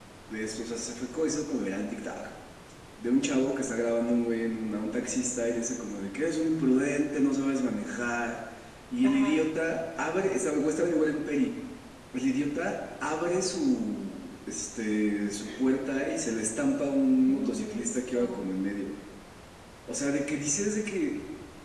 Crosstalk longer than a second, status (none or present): present